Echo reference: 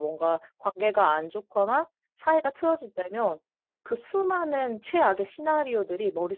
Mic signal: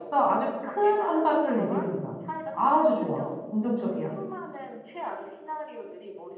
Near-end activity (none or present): present